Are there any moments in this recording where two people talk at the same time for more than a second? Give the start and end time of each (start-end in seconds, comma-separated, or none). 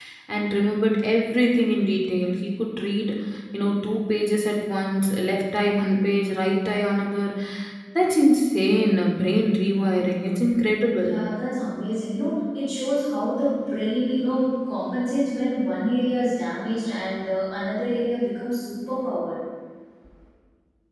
none